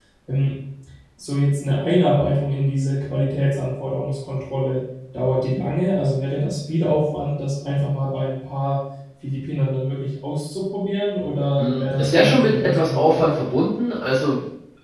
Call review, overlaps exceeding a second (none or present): present